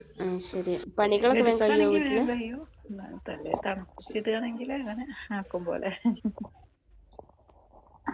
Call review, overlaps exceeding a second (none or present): present